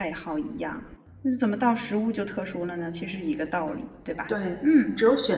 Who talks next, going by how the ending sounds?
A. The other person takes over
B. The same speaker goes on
A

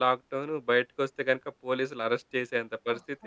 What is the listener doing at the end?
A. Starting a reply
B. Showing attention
B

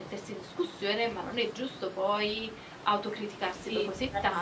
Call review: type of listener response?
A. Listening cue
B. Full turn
B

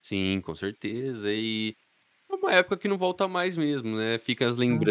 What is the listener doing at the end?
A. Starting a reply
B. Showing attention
B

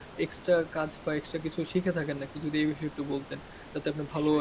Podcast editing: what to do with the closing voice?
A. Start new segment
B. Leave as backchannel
A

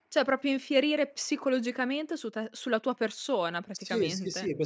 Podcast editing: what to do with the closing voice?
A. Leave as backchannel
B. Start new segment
B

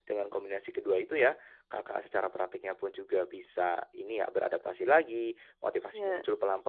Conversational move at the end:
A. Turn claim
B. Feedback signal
B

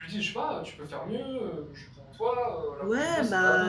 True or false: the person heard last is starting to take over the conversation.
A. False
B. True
B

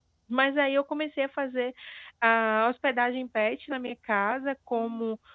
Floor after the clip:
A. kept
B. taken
A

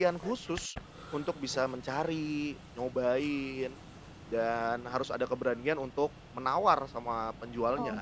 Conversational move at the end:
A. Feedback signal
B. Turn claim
B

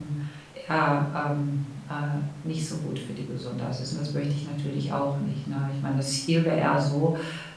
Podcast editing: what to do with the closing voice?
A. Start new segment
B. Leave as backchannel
B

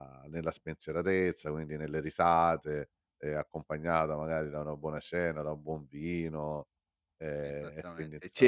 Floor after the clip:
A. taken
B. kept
A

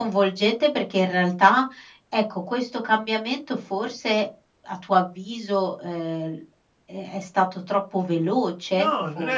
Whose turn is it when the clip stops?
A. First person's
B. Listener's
B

